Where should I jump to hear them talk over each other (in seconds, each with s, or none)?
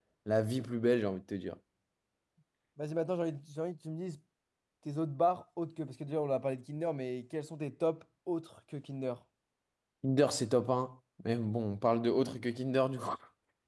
none